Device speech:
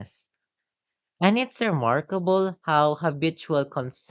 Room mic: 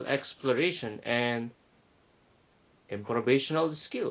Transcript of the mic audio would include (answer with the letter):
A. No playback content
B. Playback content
A